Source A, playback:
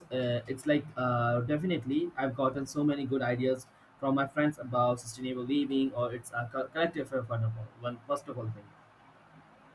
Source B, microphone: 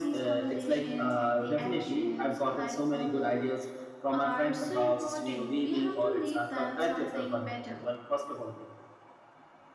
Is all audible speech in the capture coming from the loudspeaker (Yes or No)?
No